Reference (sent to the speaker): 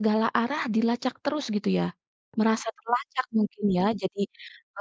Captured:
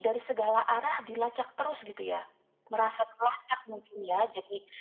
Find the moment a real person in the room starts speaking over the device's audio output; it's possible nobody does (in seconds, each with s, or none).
none